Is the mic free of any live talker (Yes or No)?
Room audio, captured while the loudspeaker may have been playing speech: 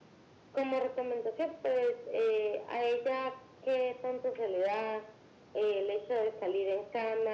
Yes